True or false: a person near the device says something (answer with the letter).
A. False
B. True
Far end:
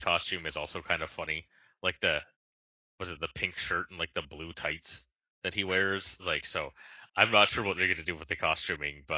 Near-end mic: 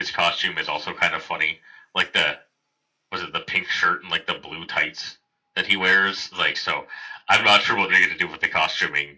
A